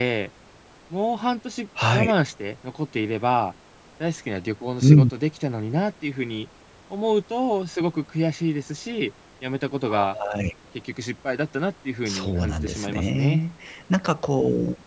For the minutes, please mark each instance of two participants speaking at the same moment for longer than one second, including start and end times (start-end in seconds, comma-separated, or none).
12.1-13.4